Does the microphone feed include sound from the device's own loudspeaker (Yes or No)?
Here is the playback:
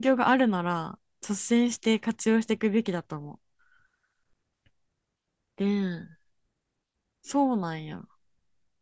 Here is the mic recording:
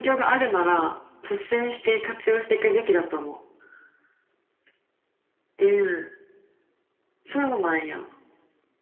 Yes